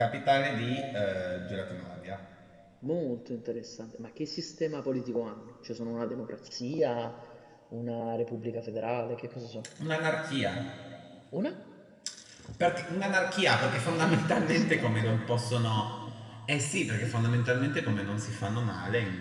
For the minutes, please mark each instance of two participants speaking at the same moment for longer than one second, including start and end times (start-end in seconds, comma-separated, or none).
13.9-15.2